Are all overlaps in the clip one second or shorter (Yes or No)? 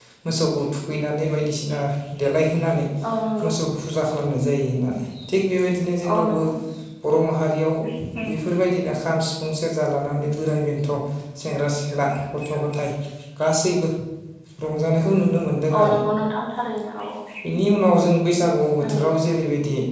Yes